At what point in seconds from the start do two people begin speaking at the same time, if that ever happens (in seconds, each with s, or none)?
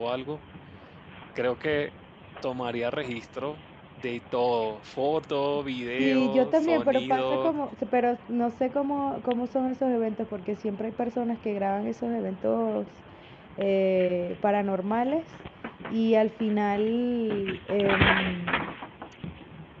6.0 s